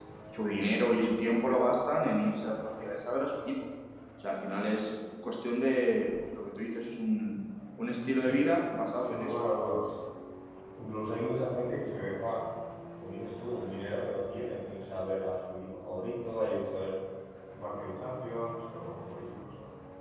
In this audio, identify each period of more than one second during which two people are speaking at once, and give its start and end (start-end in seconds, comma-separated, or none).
none